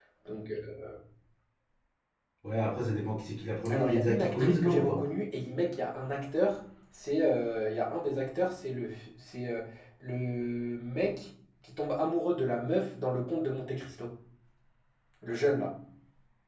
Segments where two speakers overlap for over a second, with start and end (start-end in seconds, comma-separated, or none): 3.7-5.0